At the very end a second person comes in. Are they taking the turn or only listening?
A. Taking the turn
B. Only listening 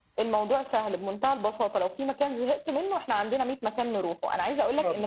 B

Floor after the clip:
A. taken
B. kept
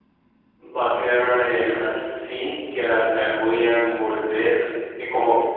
B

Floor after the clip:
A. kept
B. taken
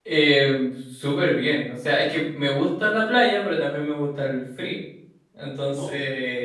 A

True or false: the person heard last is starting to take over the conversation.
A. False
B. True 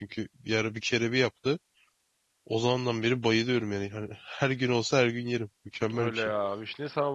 B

